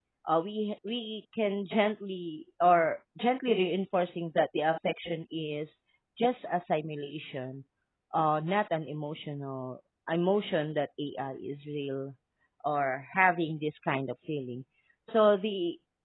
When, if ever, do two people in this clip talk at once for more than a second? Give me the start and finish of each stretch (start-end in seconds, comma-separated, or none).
none